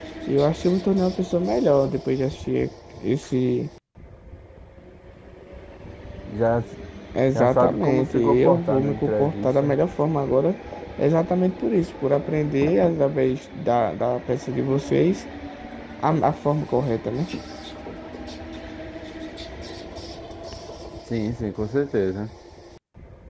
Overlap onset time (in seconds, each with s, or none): 7.3 s